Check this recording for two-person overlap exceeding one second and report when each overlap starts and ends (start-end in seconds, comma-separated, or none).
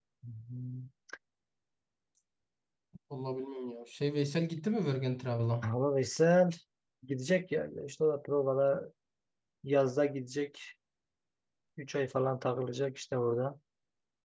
none